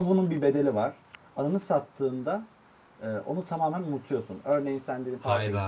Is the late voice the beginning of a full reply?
No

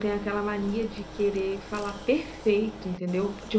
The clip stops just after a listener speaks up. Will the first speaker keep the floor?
Yes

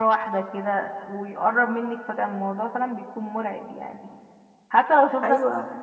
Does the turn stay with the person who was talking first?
Yes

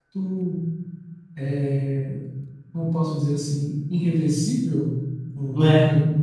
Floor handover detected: No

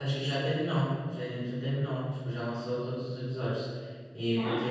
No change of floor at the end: Yes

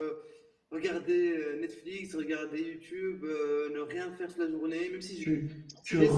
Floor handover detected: Yes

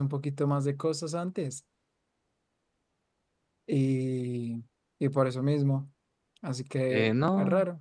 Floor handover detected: Yes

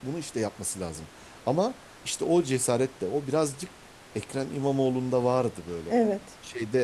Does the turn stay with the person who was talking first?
Yes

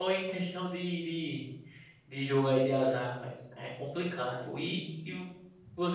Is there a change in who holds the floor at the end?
No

